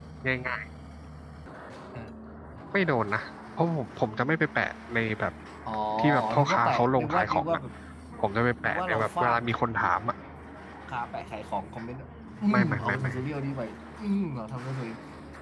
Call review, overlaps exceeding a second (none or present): present